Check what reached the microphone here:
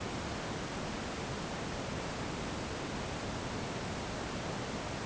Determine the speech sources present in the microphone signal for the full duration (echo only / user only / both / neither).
neither